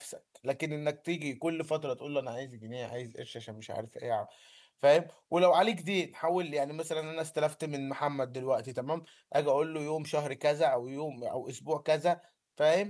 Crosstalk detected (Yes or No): No